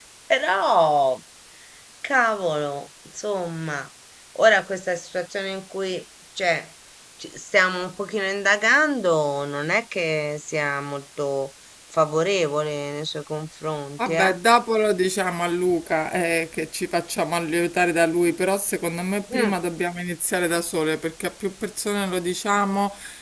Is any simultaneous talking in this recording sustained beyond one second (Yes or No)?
No